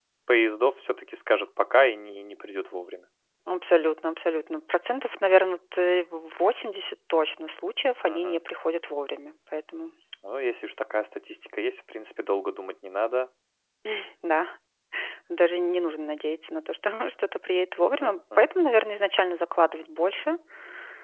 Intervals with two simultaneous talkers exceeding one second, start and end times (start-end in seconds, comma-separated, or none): none